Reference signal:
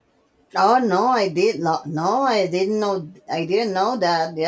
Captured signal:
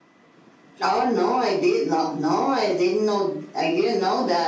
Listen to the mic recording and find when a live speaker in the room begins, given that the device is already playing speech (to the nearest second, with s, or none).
none